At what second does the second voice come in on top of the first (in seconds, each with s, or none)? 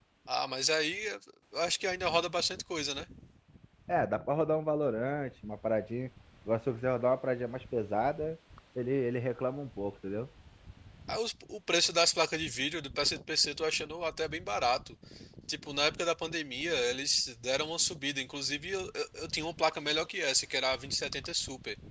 none